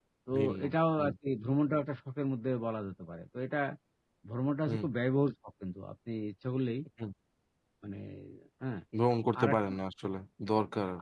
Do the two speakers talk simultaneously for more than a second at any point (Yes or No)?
No